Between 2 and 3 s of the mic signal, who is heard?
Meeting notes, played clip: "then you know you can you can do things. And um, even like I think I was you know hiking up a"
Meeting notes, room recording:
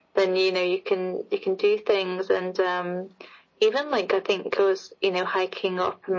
echo only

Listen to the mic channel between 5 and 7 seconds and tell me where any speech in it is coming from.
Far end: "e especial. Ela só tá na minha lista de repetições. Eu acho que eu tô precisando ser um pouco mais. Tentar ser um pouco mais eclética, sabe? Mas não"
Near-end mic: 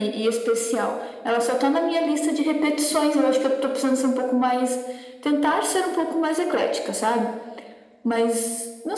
echo only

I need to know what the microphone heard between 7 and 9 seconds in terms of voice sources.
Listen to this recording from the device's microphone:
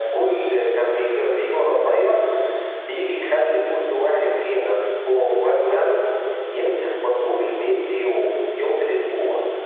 echo only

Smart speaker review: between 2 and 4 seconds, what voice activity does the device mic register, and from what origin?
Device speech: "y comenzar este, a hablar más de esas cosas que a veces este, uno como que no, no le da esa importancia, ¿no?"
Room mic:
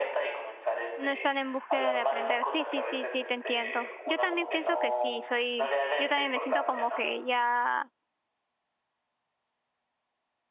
both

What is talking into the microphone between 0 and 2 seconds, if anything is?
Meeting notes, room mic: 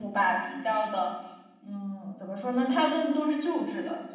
user only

